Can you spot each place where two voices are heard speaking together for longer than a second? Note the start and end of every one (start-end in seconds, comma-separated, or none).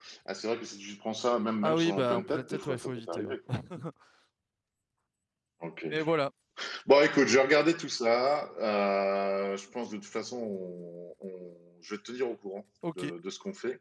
1.6-3.4